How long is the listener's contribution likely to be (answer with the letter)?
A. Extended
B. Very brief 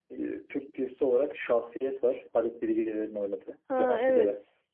A